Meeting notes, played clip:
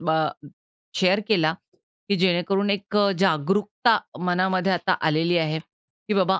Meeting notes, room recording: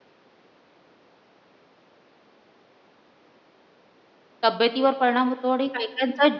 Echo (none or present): none